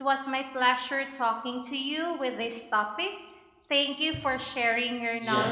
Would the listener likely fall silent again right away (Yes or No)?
No